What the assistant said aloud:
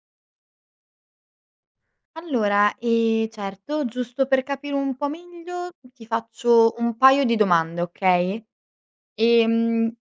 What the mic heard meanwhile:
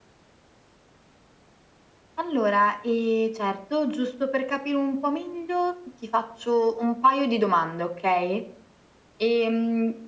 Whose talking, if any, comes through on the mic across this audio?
echo only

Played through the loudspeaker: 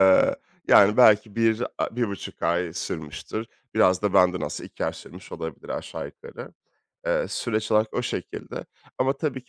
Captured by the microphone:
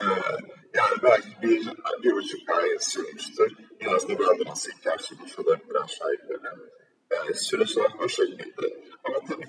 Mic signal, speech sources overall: echo only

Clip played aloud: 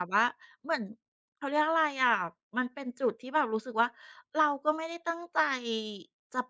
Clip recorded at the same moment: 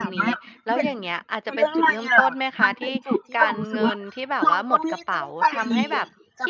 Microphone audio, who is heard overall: both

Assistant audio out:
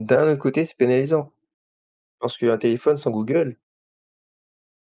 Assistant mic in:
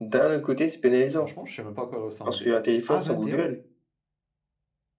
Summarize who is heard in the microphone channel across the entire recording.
both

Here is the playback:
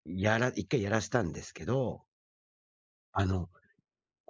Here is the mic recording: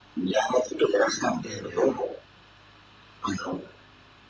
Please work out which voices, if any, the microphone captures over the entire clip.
both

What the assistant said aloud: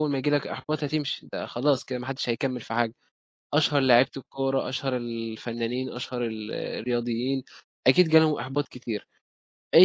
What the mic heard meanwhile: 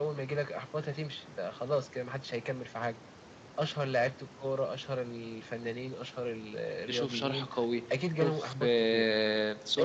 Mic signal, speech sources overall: both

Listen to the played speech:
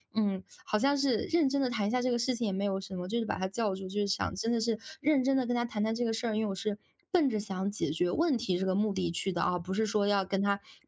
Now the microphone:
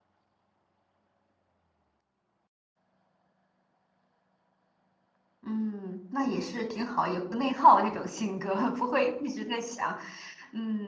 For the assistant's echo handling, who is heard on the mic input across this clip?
user only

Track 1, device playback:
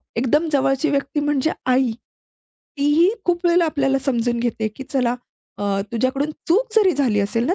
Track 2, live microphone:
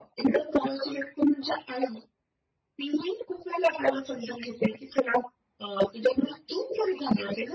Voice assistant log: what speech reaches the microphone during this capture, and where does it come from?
echo only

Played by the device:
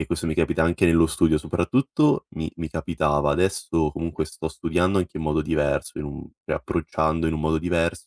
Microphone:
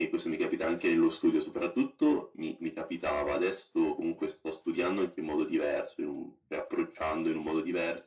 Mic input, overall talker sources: echo only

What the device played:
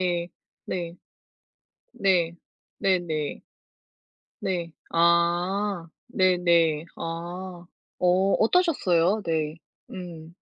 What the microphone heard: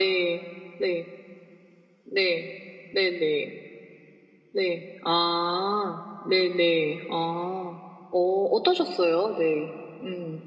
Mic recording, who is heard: echo only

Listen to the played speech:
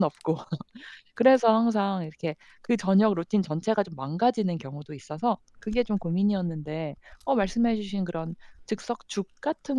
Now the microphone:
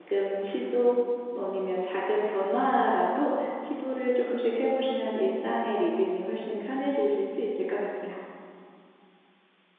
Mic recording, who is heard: user only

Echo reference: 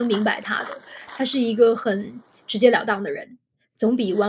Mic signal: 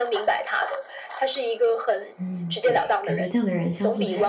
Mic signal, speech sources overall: both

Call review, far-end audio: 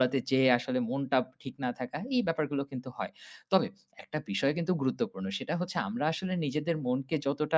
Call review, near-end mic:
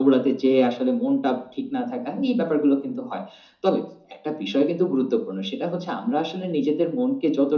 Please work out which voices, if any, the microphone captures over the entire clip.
echo only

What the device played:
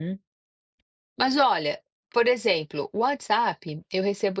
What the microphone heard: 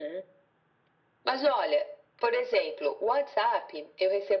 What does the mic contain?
echo only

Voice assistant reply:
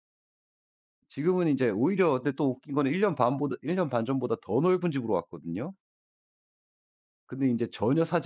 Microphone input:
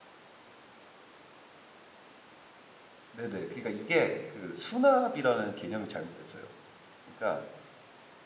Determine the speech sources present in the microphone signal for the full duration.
user only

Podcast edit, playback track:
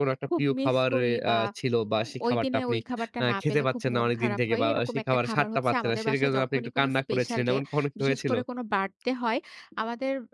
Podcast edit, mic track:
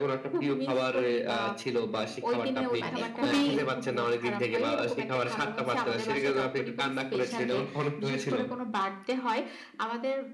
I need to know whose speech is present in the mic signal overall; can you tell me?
both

